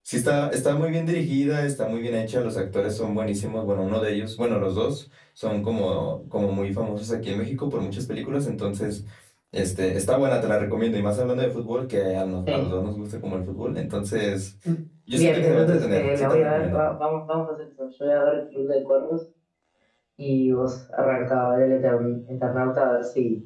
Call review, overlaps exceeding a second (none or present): present